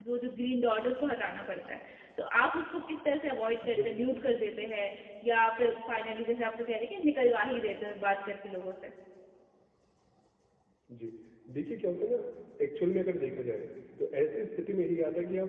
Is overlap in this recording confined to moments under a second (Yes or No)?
Yes